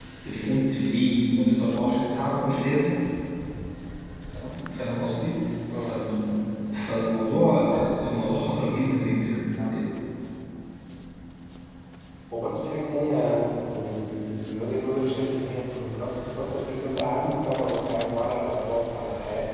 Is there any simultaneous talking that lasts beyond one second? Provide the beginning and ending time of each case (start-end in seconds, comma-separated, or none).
none